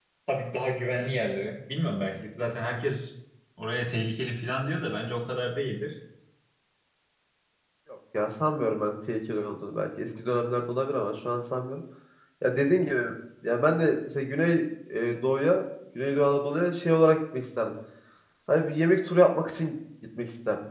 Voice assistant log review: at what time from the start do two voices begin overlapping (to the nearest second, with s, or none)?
none